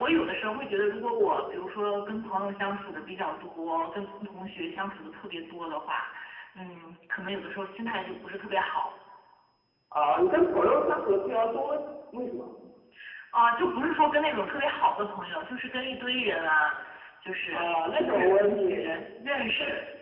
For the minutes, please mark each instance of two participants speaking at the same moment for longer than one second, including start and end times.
17.5-18.9

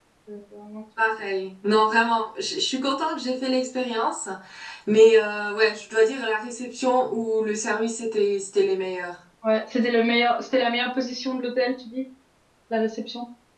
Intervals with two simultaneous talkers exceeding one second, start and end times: none

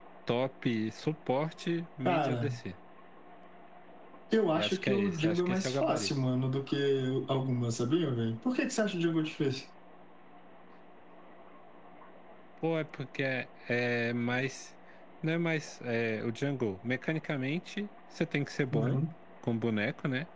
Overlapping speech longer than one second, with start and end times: 4.5-6.1

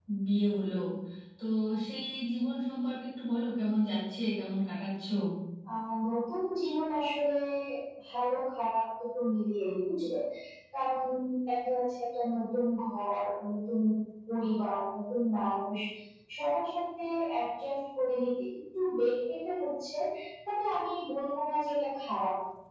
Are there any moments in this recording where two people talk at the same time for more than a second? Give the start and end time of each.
none

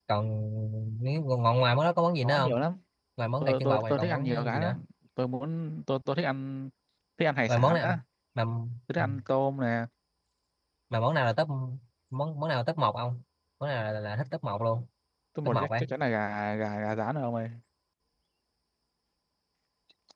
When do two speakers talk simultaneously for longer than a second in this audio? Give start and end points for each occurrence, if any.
3.4-4.8

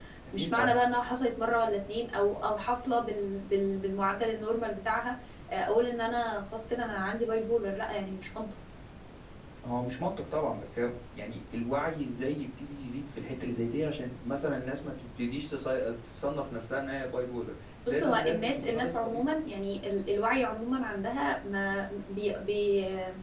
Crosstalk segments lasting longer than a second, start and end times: 17.9-19.2

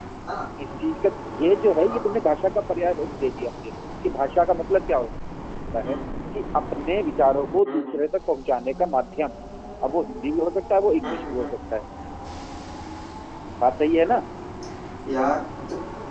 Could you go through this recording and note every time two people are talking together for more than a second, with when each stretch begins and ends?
none

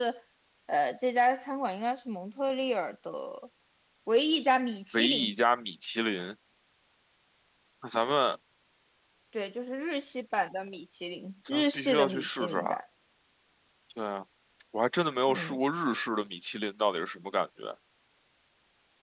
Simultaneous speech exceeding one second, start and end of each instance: 11.5-12.8

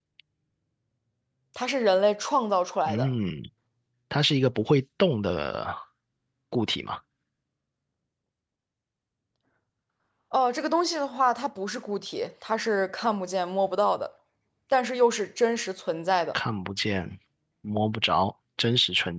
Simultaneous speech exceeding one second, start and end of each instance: none

